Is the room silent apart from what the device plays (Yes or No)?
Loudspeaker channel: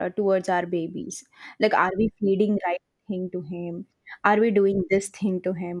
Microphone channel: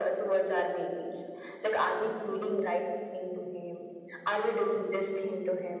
Yes